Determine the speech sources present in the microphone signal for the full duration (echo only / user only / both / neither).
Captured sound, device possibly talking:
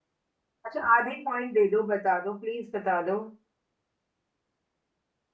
user only